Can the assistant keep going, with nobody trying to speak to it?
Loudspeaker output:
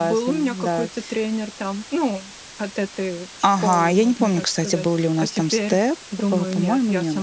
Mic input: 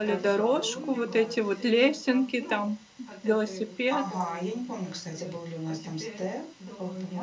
No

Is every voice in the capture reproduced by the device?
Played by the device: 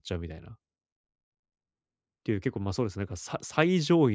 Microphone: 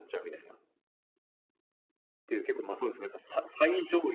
Yes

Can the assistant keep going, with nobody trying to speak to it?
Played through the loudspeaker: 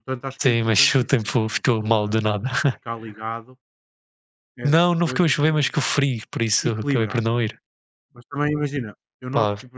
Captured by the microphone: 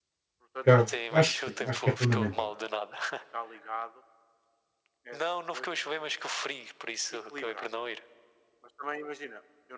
No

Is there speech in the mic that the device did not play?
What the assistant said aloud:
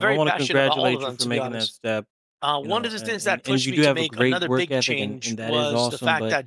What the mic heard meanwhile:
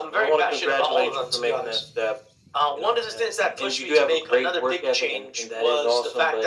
No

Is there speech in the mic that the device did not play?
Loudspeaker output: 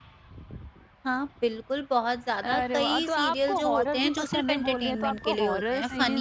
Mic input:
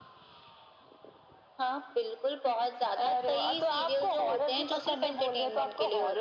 No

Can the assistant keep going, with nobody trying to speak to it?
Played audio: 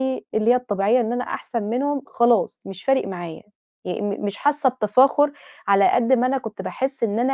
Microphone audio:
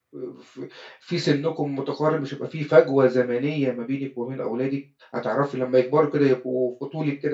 No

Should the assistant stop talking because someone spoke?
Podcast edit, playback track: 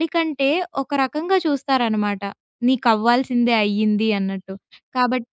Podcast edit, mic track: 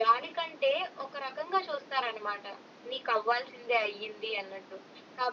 No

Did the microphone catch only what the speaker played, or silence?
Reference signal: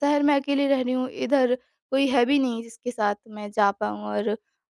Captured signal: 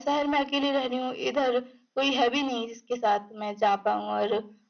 Yes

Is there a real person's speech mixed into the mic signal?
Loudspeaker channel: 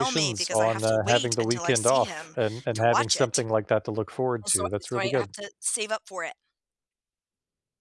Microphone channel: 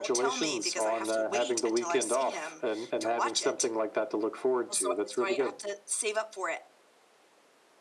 No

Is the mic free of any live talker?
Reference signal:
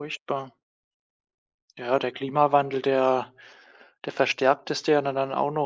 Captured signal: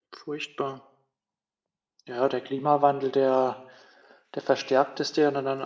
Yes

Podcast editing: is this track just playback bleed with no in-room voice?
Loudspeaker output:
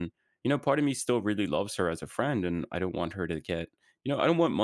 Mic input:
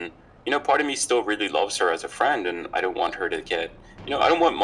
Yes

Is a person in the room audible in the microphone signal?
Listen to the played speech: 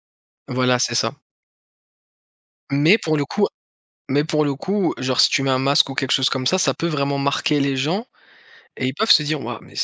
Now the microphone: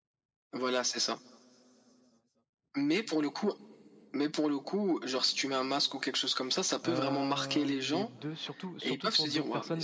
Yes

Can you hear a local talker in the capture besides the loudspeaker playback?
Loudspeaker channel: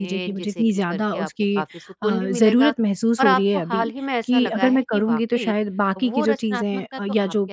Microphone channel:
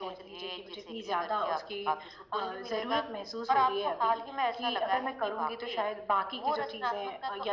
No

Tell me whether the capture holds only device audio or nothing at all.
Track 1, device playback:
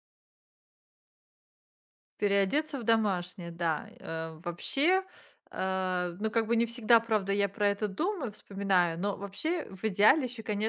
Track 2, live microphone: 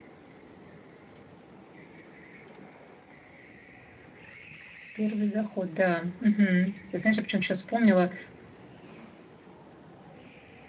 No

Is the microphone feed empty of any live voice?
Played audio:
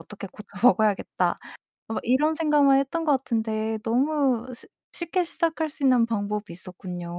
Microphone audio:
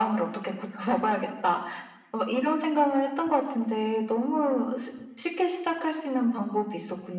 Yes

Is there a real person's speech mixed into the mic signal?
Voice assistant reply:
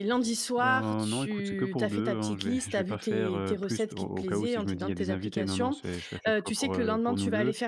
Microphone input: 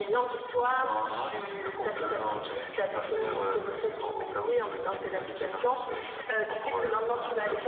No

